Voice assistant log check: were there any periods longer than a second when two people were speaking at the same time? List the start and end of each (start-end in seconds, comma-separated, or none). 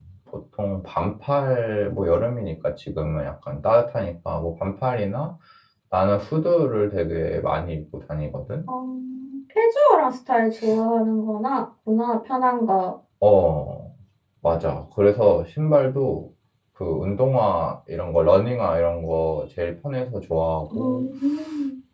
none